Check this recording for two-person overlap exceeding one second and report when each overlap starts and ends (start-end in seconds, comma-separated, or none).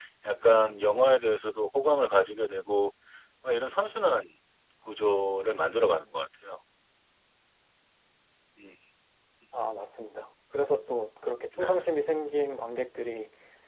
none